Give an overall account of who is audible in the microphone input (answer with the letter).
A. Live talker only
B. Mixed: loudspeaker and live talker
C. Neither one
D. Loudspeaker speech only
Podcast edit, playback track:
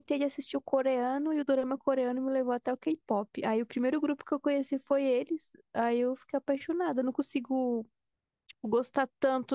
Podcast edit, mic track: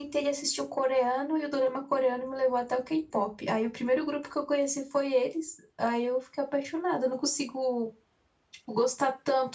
D